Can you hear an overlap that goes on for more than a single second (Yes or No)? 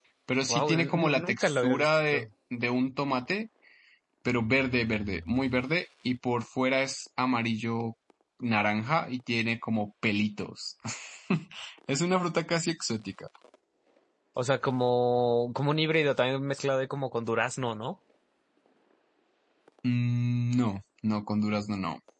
Yes